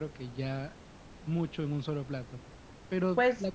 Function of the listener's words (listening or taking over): listening